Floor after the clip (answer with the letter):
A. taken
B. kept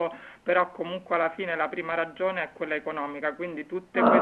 B